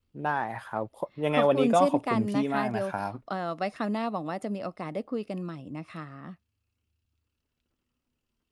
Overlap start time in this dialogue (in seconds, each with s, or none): 1.3 s